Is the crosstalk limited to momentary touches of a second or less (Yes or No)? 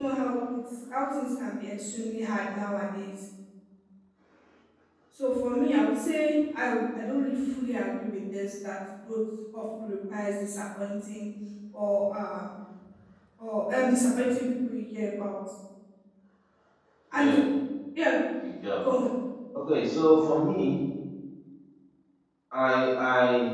Yes